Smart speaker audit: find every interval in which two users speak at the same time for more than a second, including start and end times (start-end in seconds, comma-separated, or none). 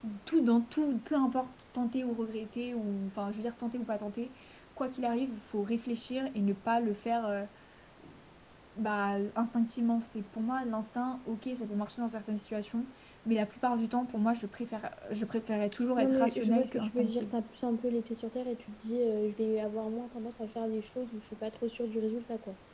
16.0-17.3